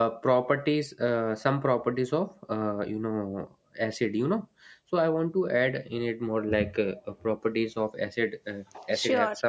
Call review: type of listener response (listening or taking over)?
listening